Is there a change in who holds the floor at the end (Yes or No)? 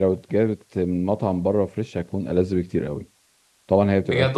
No